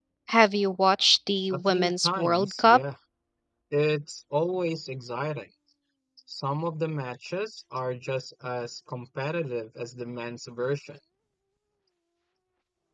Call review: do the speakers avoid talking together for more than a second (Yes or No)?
No